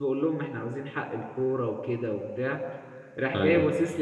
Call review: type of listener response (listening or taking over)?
listening